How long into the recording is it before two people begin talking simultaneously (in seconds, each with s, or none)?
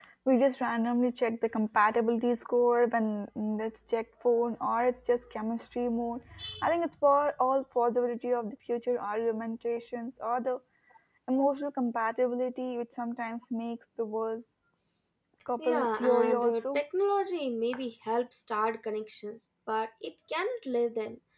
15.6 s